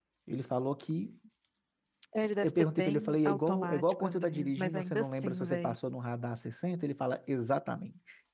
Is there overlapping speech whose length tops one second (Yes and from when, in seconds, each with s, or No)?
Yes, from 2.4 s